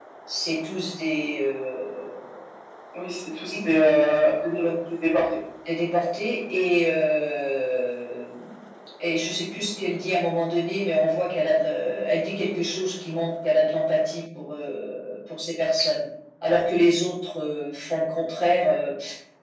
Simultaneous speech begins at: none

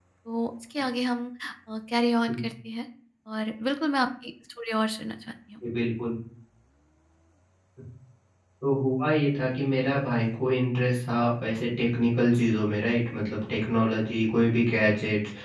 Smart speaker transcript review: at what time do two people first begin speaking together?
none

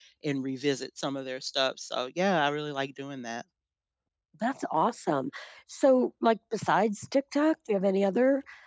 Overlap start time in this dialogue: none

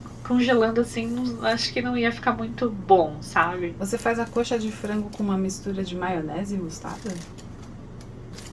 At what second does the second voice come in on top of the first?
none

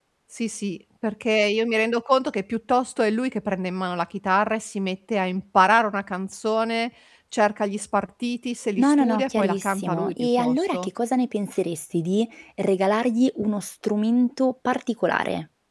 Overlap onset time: 9 s

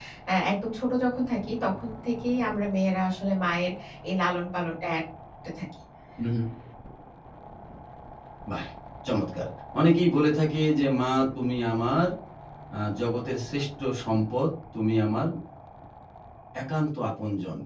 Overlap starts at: none

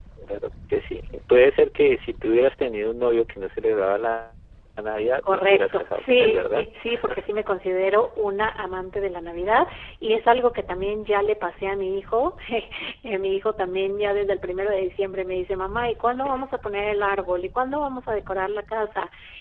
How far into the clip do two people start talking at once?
5 s

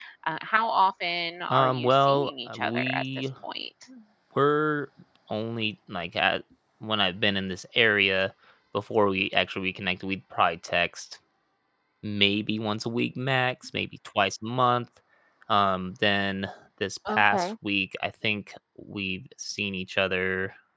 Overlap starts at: 1 s

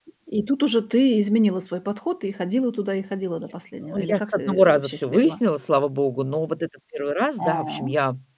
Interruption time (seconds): 4 s

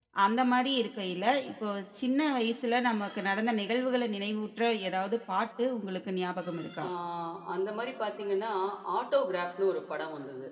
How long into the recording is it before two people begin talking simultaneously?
none

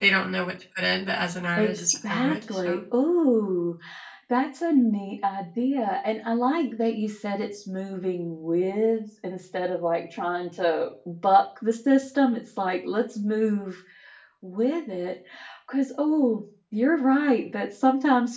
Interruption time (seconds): 2 s

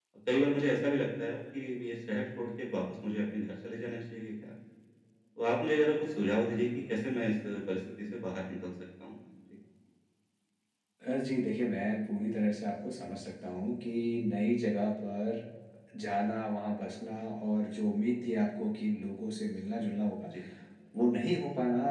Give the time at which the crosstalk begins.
none

